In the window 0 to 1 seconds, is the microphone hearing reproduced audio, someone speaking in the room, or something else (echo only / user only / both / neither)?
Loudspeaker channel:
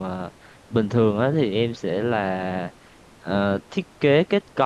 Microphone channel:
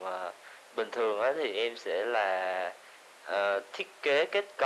echo only